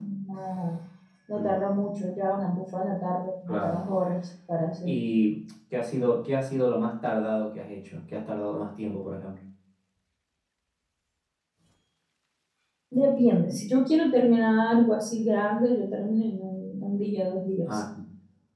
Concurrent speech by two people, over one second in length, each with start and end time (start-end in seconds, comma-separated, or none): none